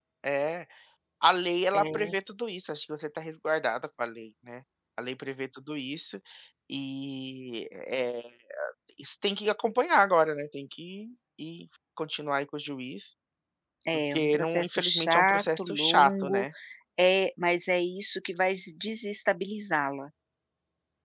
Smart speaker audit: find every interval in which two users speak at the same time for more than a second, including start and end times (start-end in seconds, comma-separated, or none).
14.1-16.4